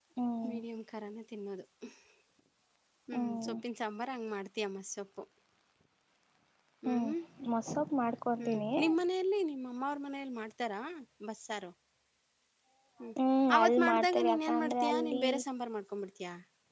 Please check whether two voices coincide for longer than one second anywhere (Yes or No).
Yes